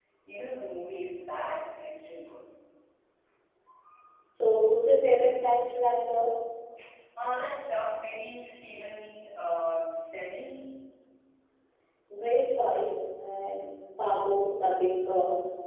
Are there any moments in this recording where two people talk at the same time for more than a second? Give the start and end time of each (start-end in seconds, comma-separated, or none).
none